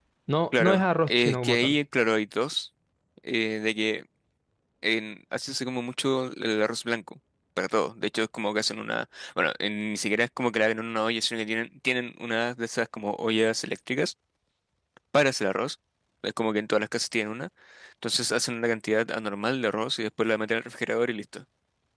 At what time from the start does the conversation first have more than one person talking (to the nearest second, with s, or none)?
1 s